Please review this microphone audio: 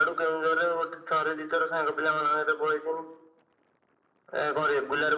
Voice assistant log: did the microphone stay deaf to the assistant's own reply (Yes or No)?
No